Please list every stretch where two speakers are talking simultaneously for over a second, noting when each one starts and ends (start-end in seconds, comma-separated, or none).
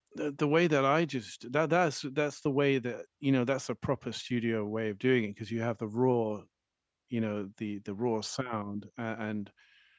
none